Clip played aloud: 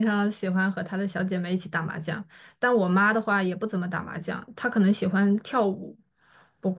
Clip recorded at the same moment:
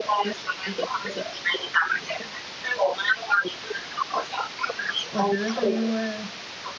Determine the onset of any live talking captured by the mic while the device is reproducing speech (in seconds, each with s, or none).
5.1 s